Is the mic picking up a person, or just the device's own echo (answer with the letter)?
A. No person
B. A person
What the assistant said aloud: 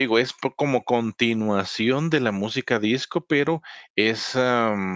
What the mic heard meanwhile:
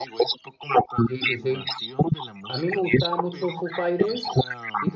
B